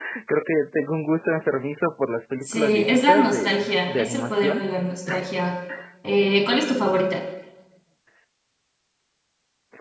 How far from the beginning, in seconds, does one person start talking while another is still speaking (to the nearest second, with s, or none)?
2 s